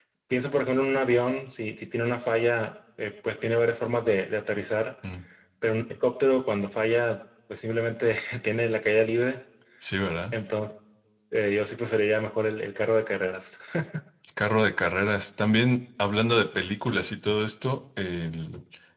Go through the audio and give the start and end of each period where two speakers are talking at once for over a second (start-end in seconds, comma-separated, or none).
none